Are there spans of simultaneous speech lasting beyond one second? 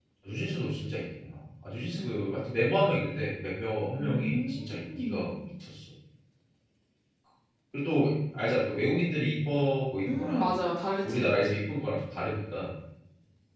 Yes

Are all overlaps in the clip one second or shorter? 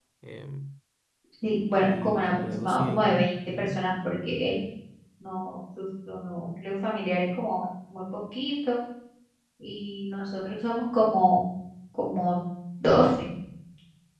No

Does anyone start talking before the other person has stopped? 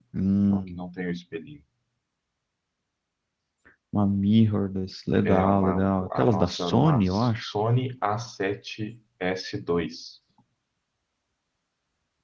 Yes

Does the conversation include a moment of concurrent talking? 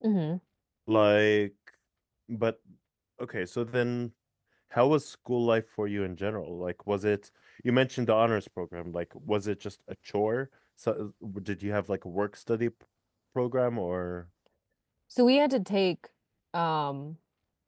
No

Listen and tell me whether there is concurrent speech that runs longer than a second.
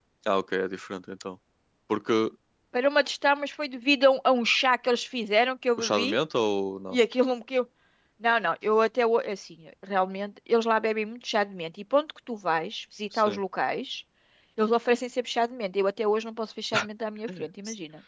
No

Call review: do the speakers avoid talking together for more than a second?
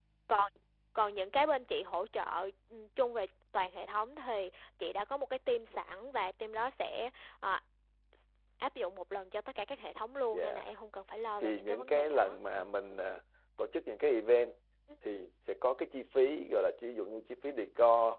No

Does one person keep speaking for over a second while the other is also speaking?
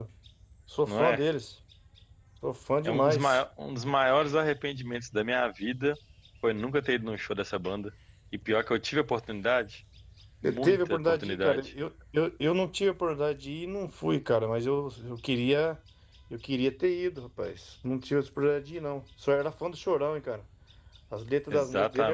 Yes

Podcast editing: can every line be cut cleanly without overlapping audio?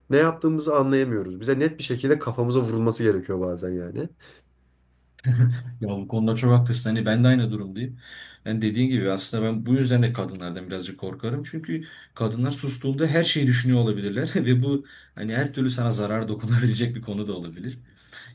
Yes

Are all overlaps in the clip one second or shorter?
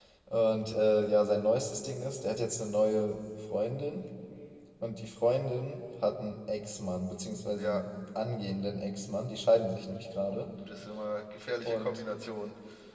Yes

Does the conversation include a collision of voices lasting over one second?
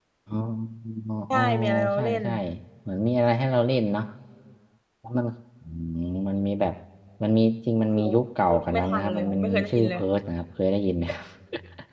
Yes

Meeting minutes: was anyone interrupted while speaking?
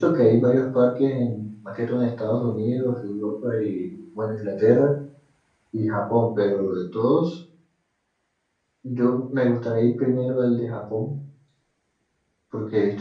No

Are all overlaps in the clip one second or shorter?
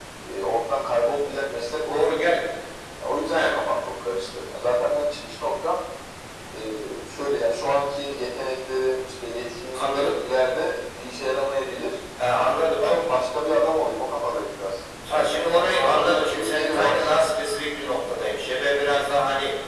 No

